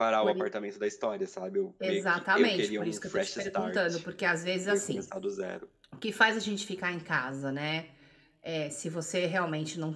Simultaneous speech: Yes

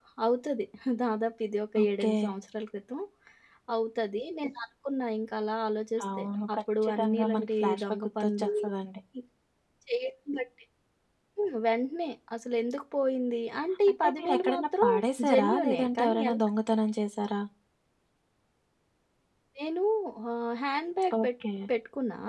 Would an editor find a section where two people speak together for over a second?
Yes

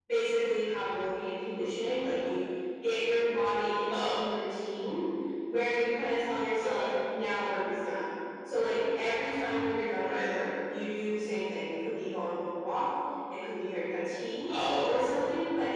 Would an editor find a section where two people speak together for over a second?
No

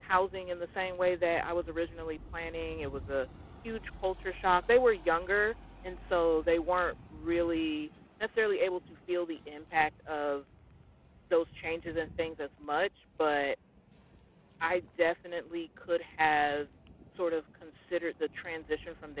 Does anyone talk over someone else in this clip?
No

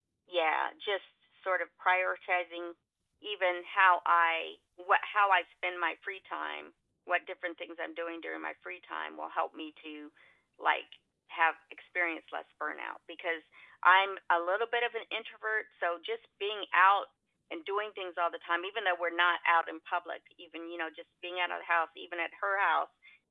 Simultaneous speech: No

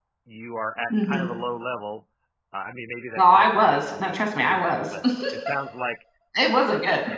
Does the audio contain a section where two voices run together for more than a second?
Yes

